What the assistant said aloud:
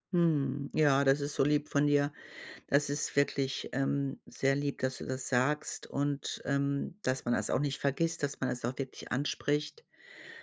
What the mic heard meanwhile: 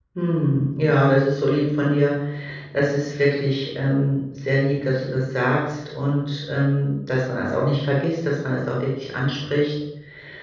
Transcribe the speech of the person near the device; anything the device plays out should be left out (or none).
none